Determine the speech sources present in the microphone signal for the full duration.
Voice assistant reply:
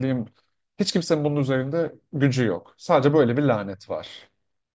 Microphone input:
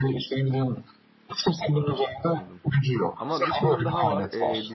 both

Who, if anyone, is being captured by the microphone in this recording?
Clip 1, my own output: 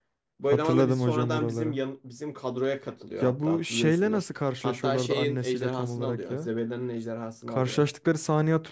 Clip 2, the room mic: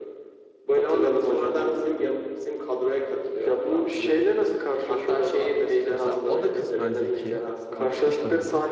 both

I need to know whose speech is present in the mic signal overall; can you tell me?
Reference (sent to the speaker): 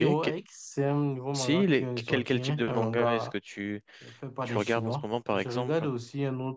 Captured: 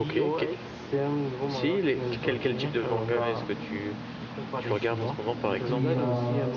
both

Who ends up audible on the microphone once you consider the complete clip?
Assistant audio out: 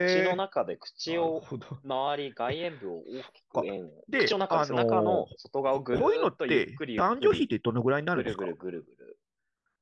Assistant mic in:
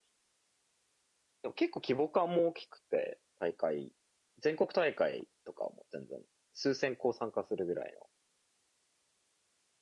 user only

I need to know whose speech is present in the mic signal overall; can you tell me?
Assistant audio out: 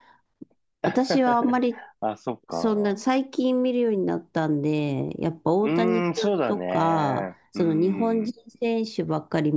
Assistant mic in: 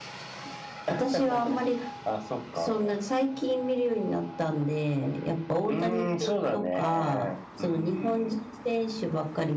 echo only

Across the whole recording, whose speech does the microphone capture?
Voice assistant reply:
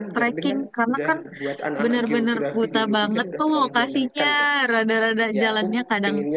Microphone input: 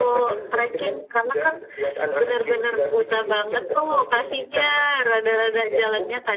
echo only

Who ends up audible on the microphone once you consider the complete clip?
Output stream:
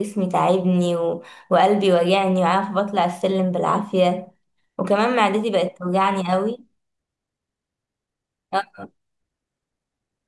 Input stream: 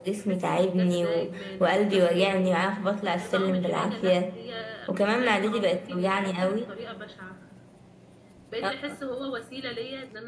both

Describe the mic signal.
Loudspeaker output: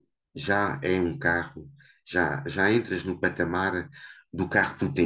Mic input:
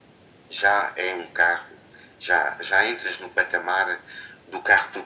echo only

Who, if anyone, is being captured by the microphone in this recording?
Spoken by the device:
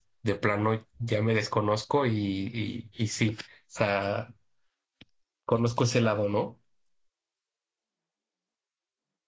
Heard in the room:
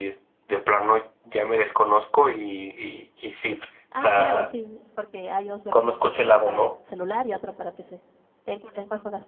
both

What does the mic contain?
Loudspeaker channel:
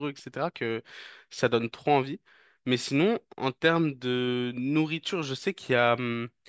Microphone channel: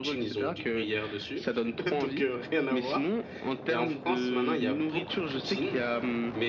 both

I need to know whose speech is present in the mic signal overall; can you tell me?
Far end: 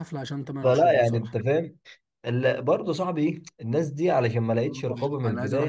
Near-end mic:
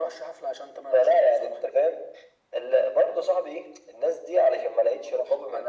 echo only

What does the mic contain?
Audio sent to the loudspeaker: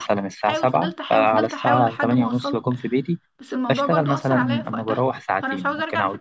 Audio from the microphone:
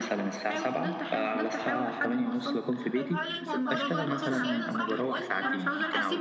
both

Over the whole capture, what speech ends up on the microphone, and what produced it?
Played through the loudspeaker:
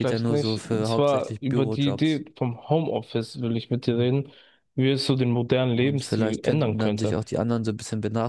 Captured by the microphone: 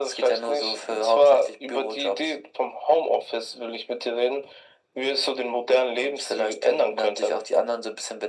echo only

